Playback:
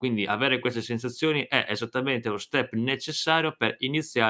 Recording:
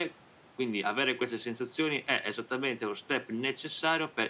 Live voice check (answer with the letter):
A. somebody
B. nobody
B